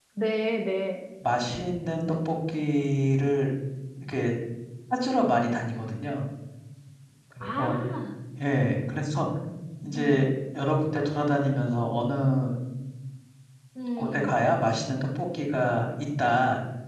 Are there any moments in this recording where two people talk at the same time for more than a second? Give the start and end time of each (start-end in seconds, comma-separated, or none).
none